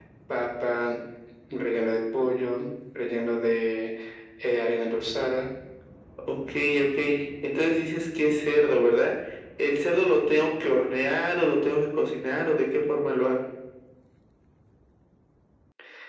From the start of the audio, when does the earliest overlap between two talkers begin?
none

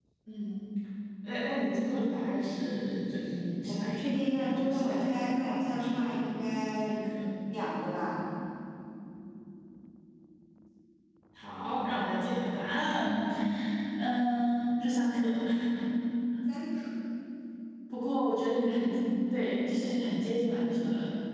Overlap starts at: 3.6 s

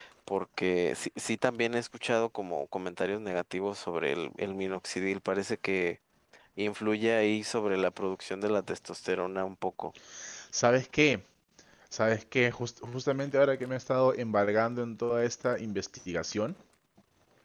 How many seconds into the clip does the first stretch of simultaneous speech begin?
none

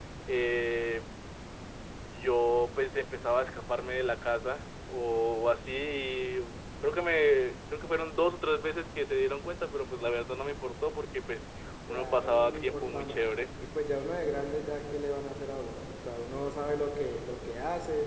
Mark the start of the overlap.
11.9 s

